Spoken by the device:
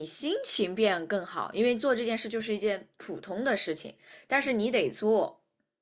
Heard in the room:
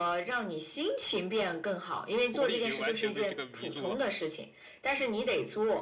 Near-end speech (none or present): present